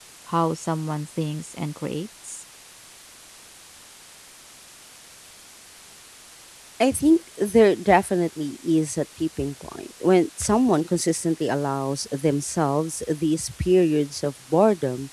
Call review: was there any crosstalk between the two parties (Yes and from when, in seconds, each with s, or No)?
No